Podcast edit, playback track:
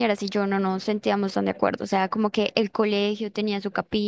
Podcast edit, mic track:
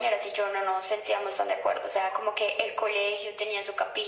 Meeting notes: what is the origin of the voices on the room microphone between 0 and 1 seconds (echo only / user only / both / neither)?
echo only